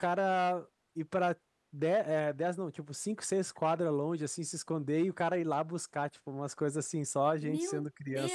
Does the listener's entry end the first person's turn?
Yes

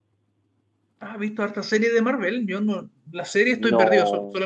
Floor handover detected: Yes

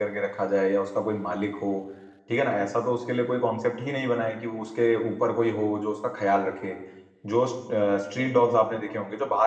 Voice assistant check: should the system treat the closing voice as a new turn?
No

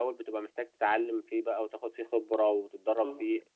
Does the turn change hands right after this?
No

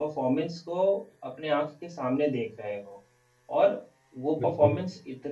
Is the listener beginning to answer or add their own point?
No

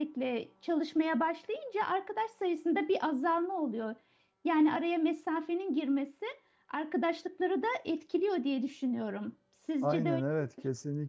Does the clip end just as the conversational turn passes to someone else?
Yes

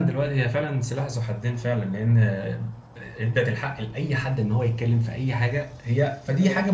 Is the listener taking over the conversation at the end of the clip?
No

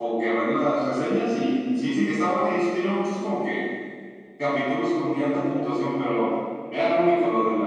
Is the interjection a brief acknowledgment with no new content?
Yes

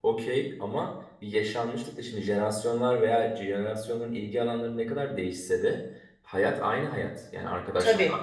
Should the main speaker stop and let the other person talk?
No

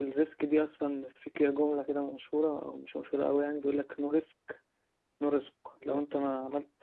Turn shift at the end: No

